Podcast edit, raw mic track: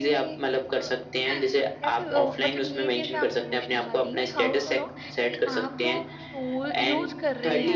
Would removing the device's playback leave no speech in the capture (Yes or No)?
No